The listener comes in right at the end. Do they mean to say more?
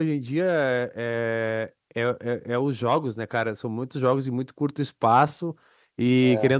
No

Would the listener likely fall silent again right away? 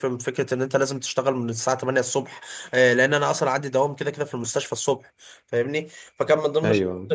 Yes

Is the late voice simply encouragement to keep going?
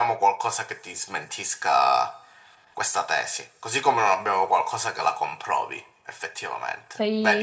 No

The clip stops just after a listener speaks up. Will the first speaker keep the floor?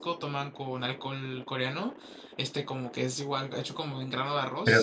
No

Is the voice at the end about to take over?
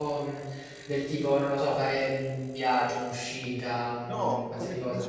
Yes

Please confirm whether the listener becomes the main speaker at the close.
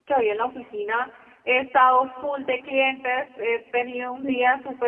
No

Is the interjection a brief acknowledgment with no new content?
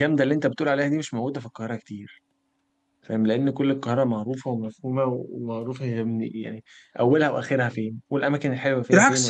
No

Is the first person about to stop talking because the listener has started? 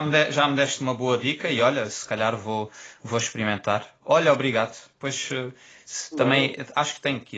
No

